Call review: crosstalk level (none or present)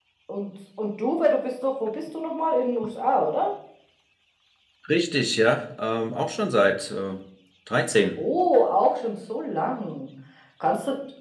none